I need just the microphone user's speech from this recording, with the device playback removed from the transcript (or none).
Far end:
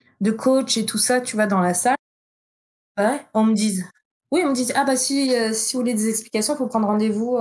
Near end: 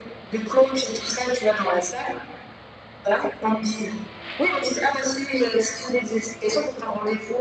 none